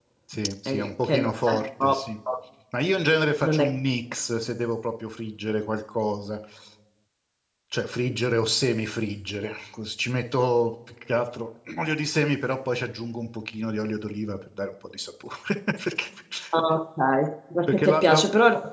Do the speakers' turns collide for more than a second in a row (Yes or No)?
Yes